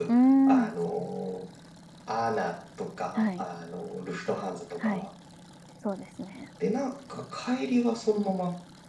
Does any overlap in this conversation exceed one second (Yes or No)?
No